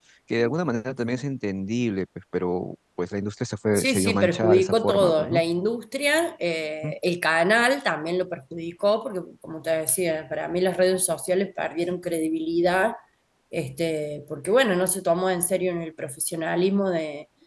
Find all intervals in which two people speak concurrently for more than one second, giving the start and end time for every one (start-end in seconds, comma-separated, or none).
3.8-5.4